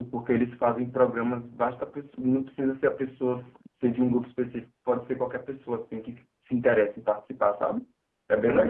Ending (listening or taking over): taking over